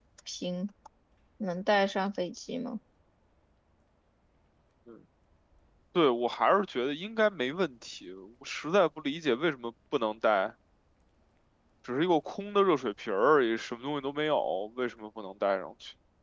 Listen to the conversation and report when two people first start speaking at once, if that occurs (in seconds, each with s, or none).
none